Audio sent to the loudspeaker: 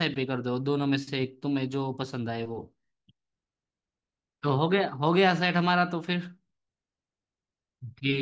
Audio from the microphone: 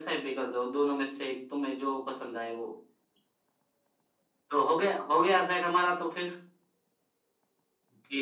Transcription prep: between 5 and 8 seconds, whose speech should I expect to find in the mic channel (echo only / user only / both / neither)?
echo only